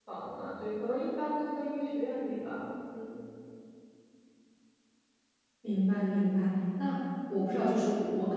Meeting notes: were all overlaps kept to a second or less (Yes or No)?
Yes